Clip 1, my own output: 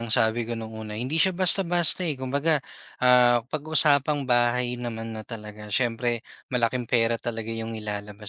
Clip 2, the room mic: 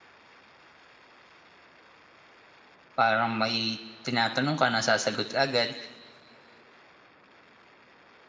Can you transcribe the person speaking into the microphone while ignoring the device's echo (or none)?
parang may tinatanong ka nasasagot ka agad,